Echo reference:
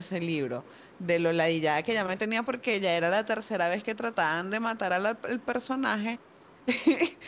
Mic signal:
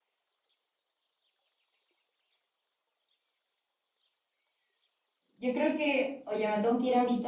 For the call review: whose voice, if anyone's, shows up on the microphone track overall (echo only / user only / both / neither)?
user only